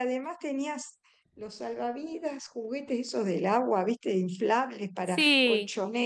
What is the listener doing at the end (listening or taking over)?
listening